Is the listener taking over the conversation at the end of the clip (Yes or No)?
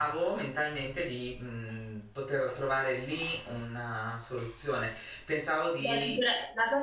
Yes